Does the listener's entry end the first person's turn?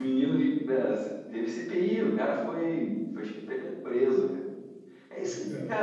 No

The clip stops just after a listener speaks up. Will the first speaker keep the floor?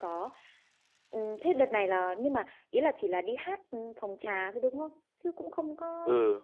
No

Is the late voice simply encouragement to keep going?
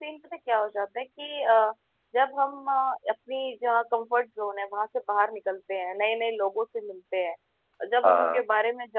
Yes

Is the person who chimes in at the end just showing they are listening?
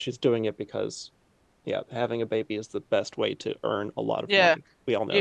No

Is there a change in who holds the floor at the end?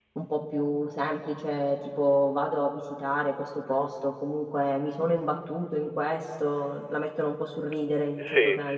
Yes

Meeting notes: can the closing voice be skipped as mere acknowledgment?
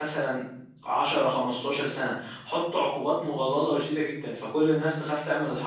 Yes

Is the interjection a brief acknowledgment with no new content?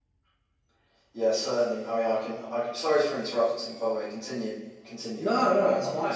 No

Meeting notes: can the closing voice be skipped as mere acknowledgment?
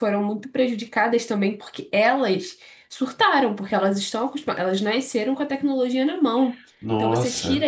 Yes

